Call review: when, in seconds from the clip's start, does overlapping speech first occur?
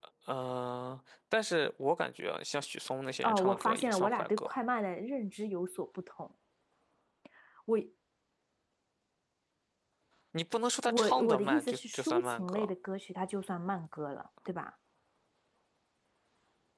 3.2 s

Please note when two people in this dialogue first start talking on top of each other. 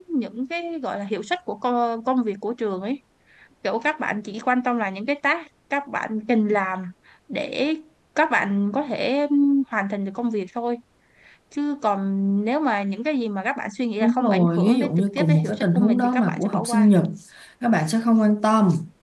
14.0 s

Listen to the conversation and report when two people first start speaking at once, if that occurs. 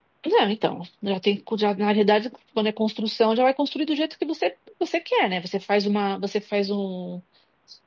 none

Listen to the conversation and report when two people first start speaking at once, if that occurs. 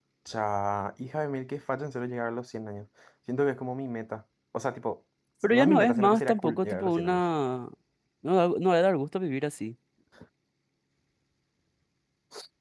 5.5 s

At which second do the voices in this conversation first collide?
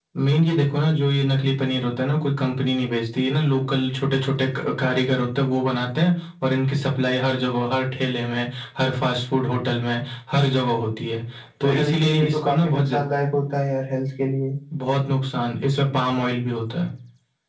11.7 s

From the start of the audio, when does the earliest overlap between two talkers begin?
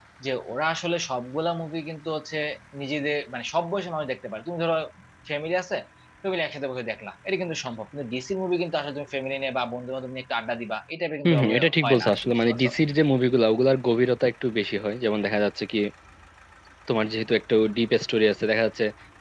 11.2 s

